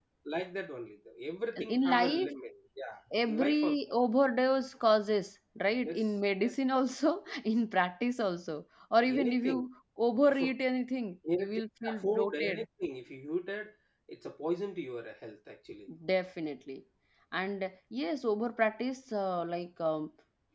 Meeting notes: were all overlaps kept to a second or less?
No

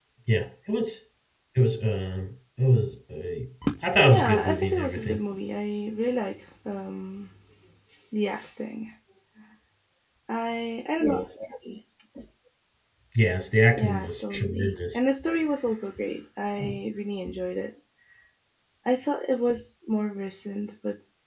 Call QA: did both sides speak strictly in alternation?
No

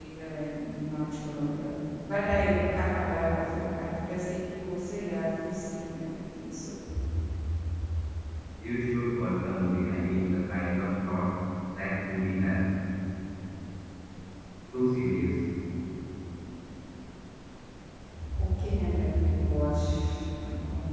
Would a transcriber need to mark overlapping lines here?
No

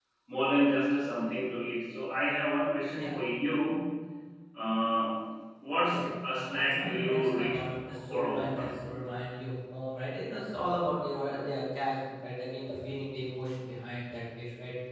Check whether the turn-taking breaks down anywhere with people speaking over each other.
Yes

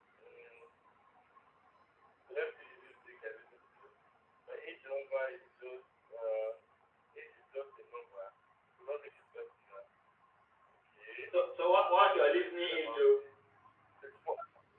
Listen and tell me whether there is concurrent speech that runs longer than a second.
Yes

